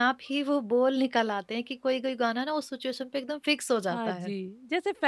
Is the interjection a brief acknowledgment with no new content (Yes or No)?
No